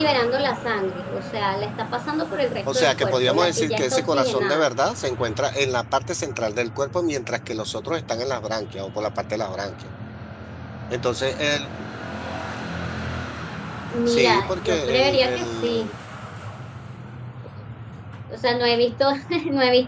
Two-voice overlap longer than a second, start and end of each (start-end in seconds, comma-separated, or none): 2.8-4.7, 14.1-15.9